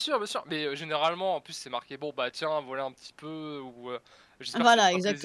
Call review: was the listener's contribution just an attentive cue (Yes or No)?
Yes